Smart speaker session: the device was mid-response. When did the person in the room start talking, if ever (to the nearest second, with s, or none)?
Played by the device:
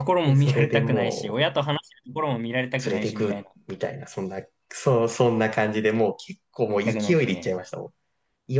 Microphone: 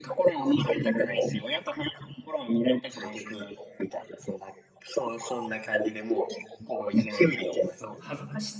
8 s